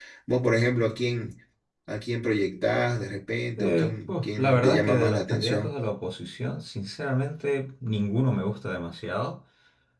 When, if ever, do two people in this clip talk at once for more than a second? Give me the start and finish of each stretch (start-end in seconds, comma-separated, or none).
3.6-5.7